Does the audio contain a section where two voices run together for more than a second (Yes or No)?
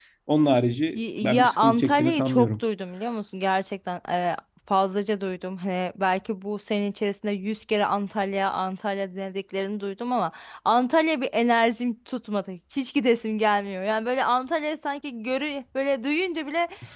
Yes